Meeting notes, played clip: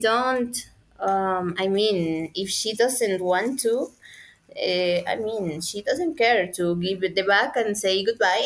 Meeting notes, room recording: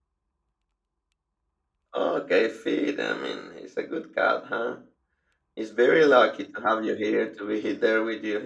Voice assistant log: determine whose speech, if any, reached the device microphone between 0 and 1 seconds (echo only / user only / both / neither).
neither